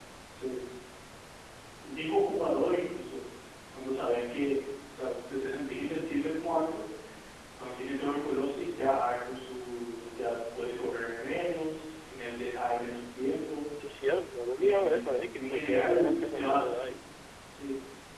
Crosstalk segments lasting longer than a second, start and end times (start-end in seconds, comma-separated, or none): 14.6-16.9